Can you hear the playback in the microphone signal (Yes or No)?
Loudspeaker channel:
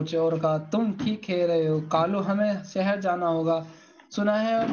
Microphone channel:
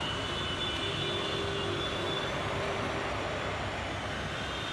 No